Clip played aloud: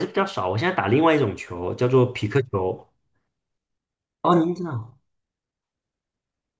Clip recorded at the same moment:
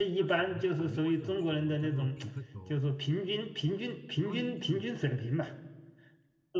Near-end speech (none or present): present